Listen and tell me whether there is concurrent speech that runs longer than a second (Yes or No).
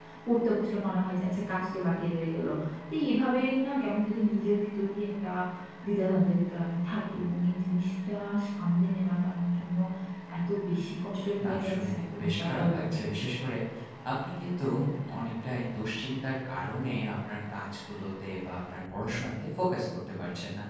Yes